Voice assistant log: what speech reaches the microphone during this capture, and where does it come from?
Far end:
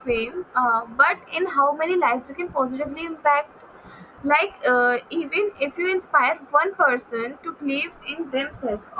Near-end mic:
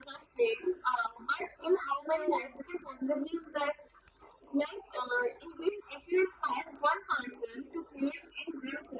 both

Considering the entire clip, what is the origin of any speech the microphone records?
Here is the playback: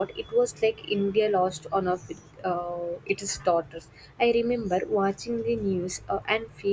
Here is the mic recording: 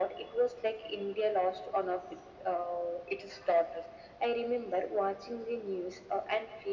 echo only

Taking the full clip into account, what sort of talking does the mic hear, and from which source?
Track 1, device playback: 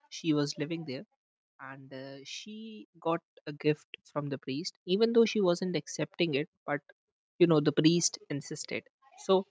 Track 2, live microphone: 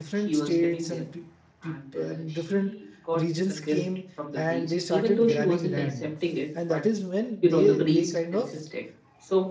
both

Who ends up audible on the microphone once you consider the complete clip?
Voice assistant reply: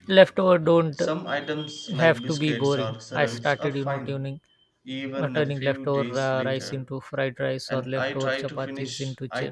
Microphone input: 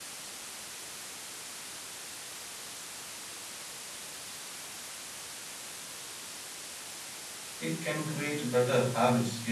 user only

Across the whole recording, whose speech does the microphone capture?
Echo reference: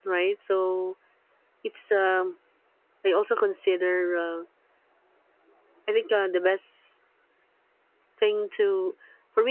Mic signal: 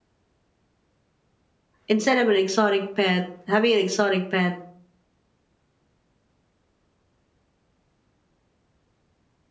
user only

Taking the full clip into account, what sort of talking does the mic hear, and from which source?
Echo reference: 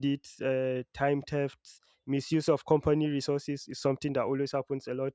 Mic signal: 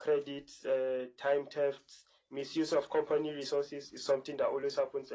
echo only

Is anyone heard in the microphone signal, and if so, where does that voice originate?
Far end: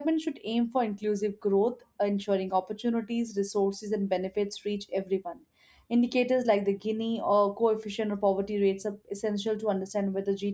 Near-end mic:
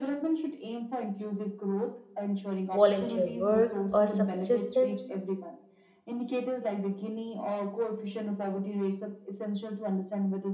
both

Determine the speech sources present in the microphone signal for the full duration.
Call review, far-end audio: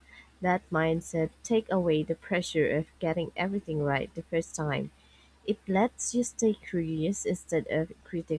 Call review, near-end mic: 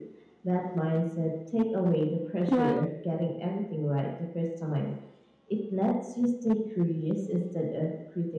both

